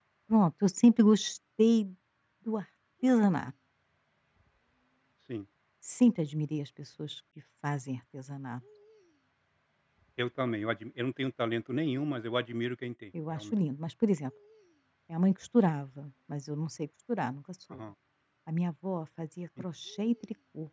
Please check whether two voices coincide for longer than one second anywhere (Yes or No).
No